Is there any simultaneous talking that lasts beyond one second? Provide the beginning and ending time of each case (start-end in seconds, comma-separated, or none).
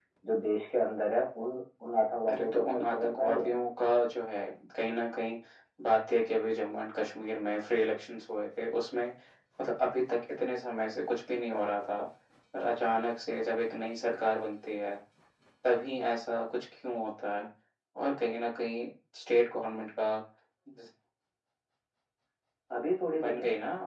2.3-3.5